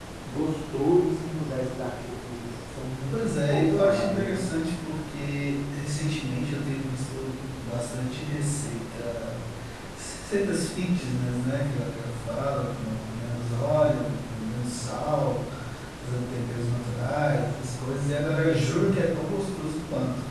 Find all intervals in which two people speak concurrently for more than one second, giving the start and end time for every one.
3.1-4.5

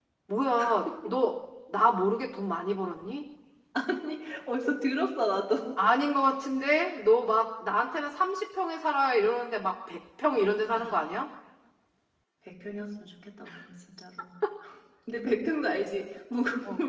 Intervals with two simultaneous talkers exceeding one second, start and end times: none

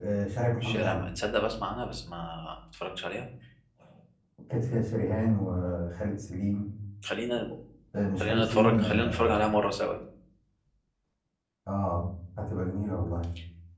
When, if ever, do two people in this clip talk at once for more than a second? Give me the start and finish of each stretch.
8.2-9.5

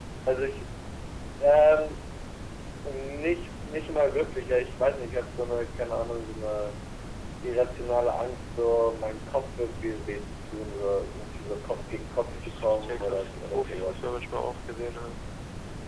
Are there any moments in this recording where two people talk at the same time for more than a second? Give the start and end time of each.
12.2-14.0

